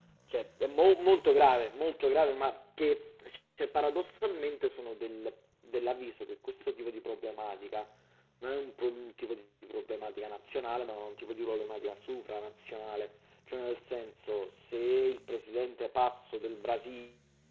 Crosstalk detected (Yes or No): No